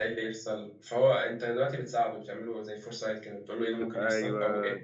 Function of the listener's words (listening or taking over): listening